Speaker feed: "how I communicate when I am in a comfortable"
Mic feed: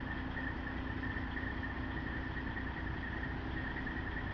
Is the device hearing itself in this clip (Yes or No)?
No